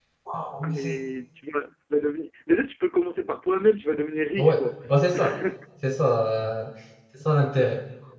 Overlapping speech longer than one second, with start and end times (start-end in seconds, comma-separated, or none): none